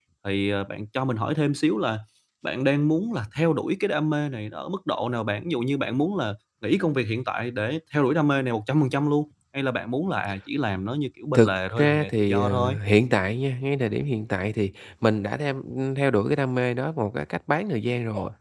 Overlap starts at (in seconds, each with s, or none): 11.3 s